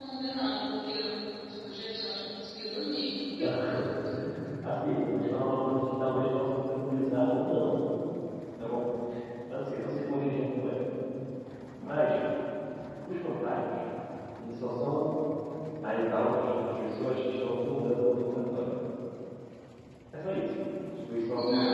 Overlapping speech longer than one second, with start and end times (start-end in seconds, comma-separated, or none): none